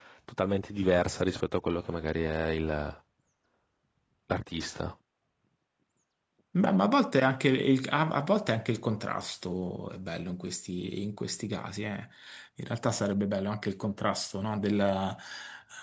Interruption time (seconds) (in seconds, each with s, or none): none